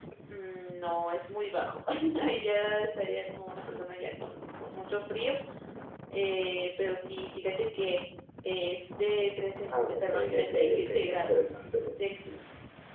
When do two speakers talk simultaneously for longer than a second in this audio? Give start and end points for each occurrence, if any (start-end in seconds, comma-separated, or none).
9.9-11.4